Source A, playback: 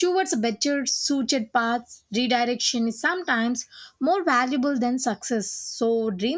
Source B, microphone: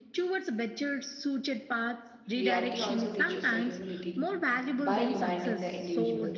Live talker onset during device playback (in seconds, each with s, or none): 2.3 s